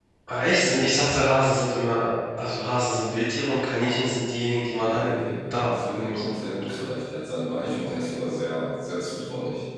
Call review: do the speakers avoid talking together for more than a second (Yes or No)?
No